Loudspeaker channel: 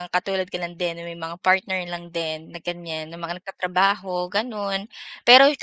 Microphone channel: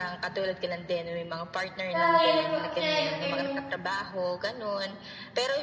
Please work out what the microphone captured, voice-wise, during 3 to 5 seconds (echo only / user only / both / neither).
both